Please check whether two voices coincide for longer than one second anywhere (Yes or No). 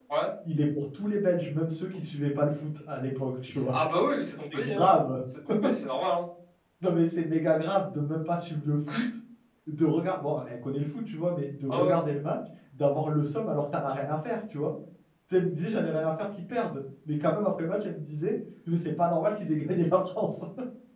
No